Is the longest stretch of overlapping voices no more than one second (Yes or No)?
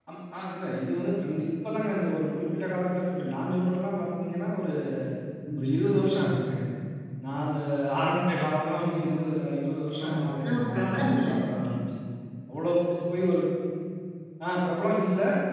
No